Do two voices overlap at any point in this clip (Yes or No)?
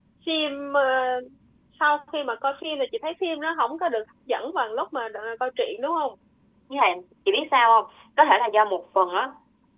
No